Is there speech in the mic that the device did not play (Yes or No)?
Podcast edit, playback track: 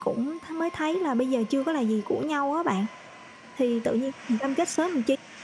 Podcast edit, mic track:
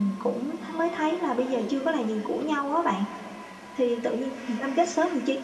Yes